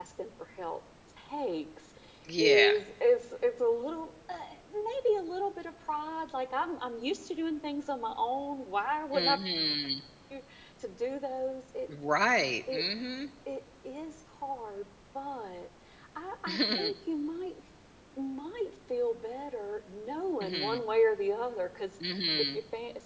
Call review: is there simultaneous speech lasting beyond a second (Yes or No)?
No